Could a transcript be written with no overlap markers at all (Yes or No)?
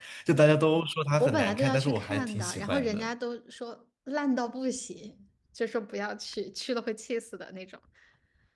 No